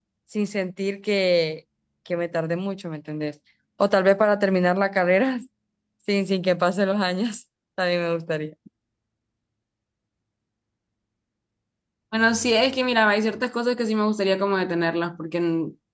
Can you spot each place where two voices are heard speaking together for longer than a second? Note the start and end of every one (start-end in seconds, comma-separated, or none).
none